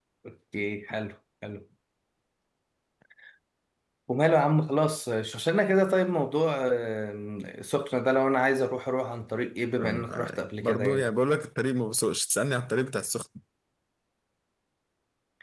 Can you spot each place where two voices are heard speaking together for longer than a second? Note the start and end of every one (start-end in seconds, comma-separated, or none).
9.8-11.1